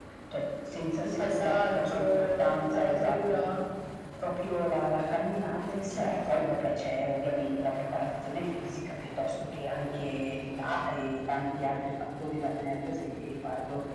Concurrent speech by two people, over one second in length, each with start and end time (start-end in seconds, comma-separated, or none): 1.0-3.4